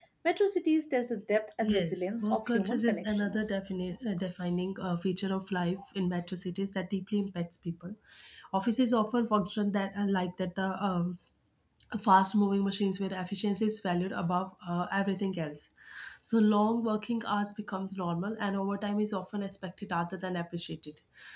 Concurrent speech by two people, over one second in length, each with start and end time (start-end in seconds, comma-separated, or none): 1.6-3.5